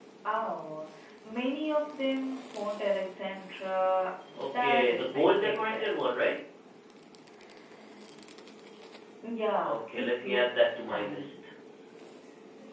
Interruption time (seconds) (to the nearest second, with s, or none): 5 s